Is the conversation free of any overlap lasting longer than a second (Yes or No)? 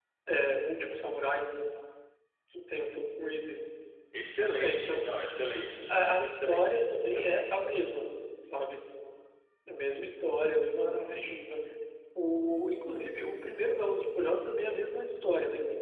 No